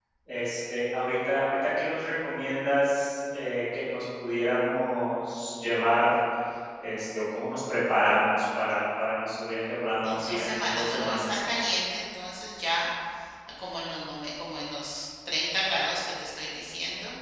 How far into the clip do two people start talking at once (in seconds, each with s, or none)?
10.0 s